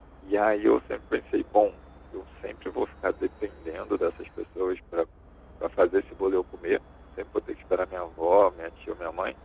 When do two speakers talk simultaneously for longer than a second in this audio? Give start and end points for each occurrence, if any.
none

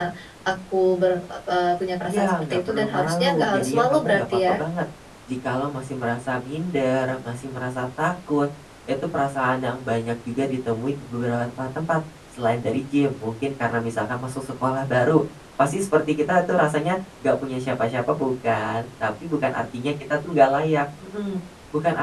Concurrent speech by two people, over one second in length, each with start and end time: 2.0-4.6

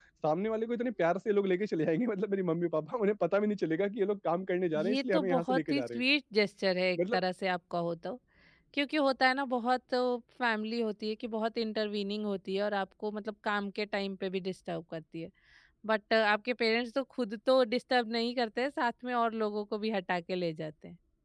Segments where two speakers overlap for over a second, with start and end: 4.8-6.0

